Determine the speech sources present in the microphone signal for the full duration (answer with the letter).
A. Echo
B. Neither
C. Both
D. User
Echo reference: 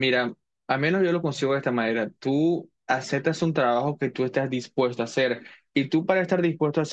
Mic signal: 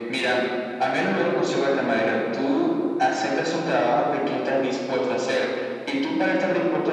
A